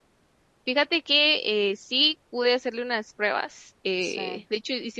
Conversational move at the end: listening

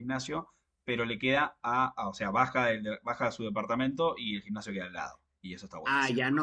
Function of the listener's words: taking over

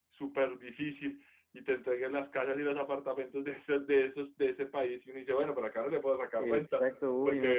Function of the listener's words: taking over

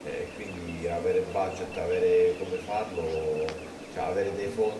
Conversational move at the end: listening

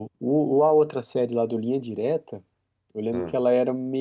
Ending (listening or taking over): listening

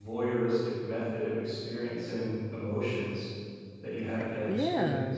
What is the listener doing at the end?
taking over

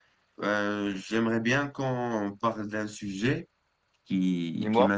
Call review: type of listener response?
listening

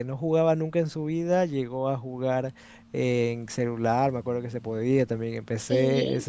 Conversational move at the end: listening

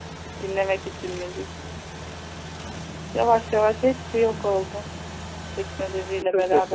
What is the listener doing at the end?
taking over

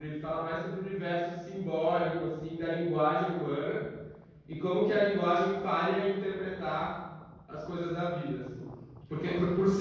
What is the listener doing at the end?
listening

